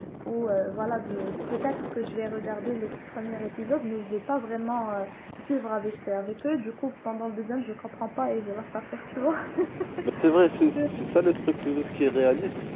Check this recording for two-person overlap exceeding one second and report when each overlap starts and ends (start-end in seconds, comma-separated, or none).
none